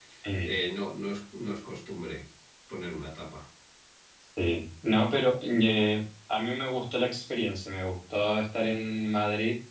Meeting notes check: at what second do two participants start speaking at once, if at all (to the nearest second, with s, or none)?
none